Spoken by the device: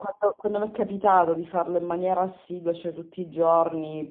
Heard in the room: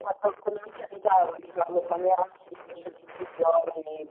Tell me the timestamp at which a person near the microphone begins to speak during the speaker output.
none

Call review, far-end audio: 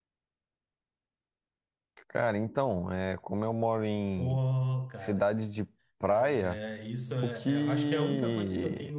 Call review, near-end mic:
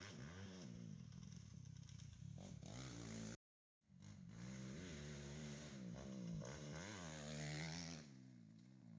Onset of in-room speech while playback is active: none

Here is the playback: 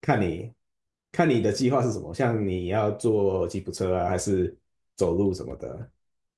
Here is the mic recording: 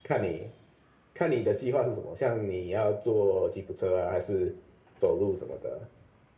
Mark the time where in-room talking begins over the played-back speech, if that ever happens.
none

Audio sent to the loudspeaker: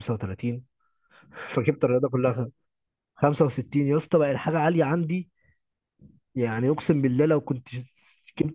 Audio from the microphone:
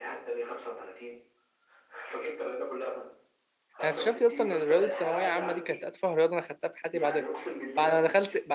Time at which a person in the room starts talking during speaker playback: 3.8 s

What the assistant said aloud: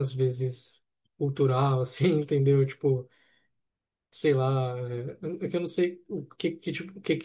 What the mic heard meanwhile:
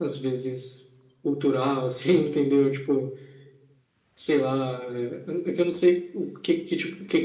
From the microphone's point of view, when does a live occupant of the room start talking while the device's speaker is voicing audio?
none

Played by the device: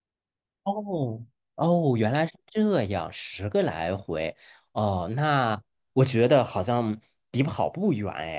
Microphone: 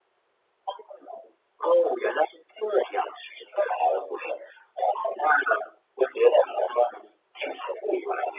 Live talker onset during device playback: none

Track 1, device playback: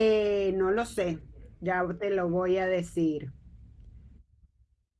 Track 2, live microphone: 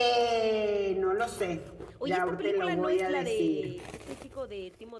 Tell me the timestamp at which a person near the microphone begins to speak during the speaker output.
2.0 s

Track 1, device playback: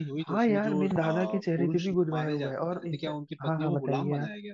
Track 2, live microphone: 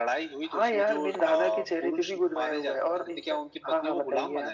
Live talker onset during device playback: none

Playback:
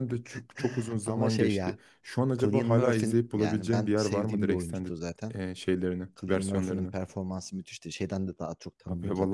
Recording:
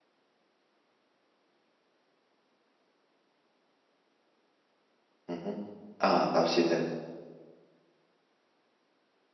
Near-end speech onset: 5.3 s

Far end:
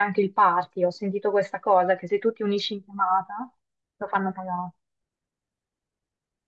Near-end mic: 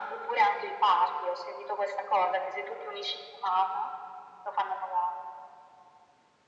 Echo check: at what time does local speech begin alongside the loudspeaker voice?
none

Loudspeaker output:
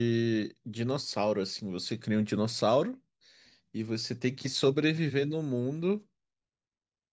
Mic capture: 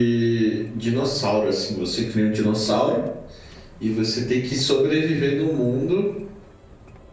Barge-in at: none

